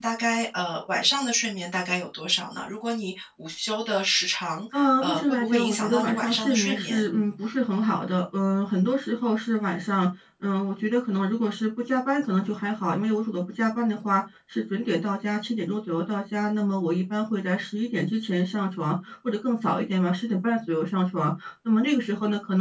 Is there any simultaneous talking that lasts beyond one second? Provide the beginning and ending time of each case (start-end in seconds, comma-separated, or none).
4.7-7.1